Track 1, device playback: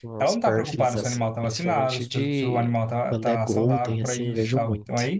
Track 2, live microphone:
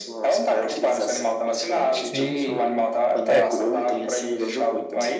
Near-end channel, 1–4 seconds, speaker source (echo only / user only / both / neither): both